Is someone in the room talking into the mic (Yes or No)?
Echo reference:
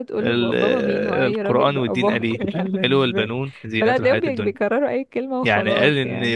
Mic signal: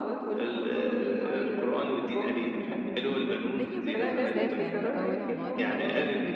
Yes